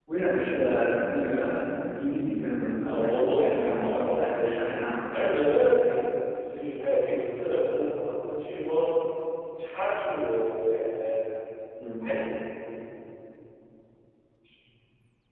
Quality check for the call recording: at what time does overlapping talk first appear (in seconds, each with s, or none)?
2.8 s